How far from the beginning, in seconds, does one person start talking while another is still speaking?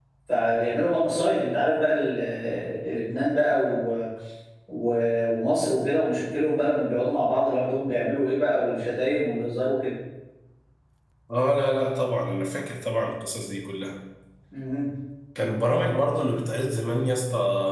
none

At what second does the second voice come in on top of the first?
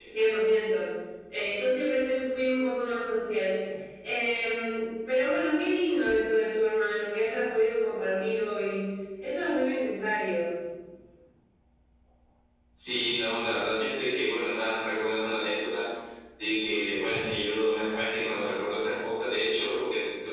none

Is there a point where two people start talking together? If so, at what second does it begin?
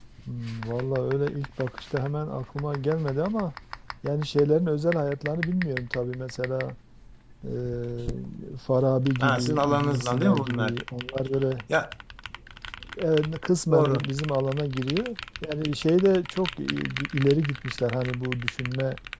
9.2 s

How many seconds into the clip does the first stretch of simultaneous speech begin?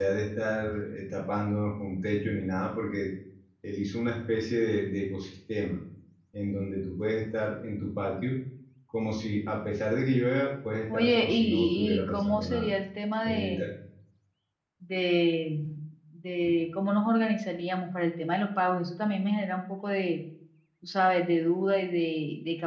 10.9 s

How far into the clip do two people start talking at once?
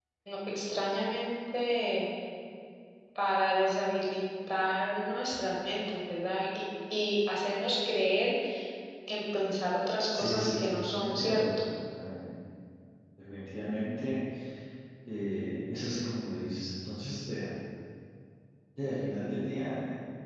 10.1 s

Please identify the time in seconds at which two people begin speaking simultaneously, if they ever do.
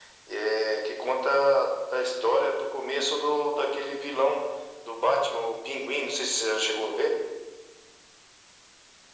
none

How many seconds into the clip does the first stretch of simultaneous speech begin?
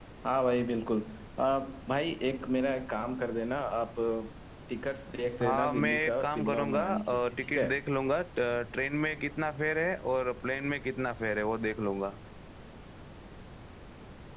5.4 s

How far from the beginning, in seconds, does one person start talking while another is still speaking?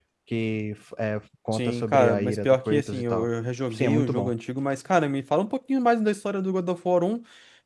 1.5 s

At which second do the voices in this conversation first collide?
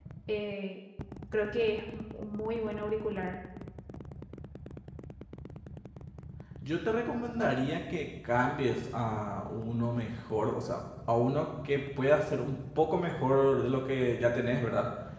none

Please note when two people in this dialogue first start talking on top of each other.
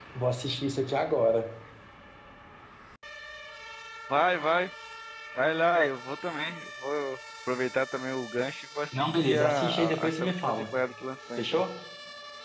8.9 s

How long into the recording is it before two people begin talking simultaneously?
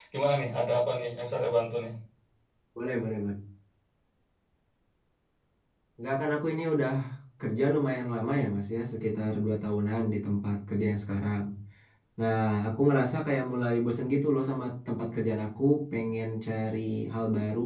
none

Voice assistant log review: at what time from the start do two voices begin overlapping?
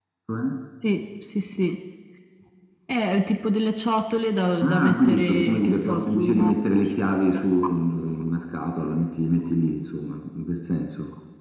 4.6 s

